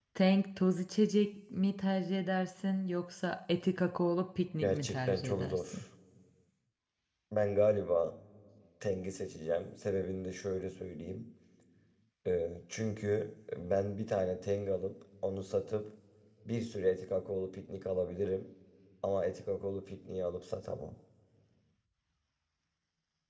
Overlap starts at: 4.6 s

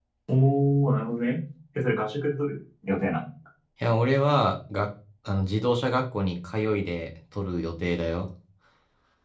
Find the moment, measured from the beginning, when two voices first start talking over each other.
none

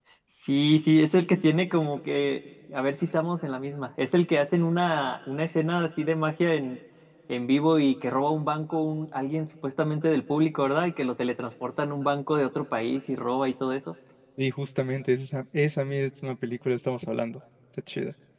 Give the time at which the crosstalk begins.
none

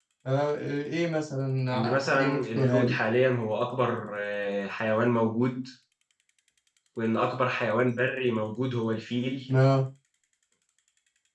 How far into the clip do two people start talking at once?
1.7 s

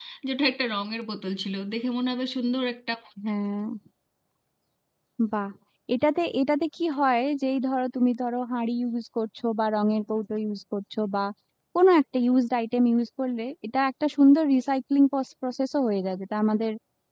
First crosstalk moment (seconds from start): none

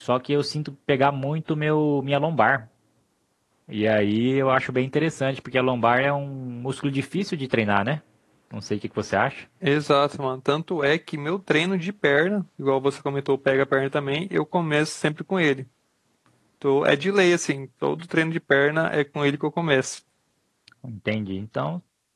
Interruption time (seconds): none

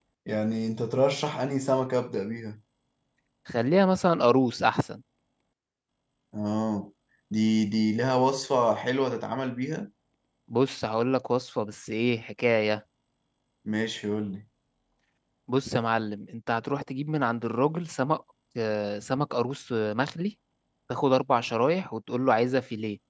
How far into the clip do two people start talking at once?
none

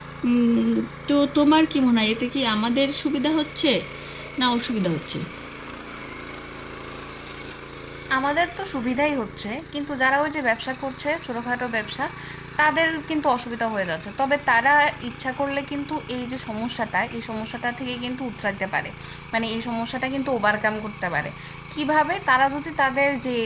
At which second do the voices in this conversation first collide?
none

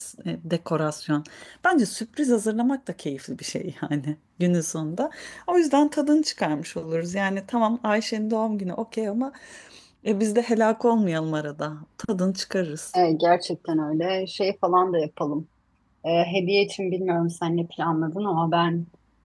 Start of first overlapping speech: none

